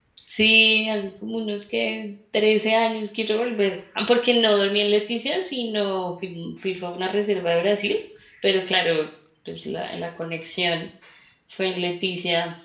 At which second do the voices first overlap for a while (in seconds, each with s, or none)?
none